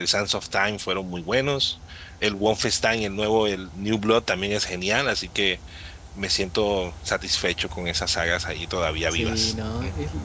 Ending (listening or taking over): taking over